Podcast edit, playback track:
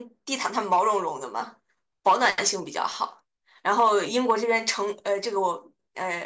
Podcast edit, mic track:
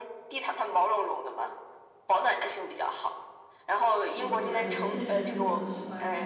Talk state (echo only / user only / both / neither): both